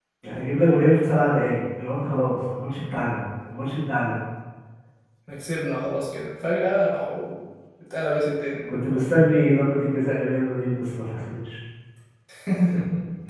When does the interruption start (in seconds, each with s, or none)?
none